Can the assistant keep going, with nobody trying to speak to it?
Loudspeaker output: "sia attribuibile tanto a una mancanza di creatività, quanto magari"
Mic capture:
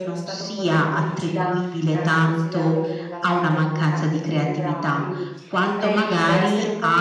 No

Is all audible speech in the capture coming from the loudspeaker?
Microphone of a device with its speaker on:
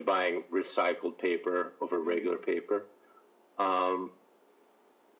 No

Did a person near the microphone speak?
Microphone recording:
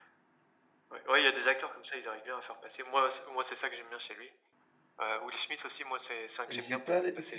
Yes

